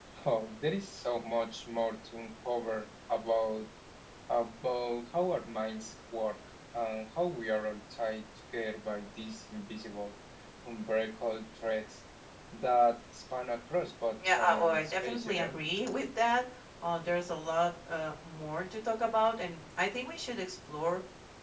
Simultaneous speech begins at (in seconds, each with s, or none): 14.2 s